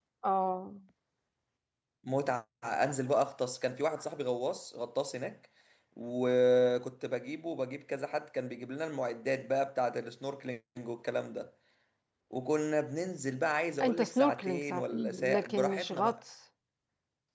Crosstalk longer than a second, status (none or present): present